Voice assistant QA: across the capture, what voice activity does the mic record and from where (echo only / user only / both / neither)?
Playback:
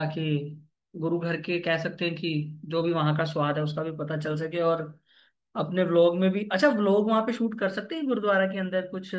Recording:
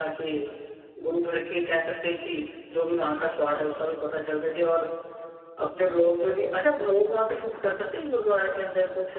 echo only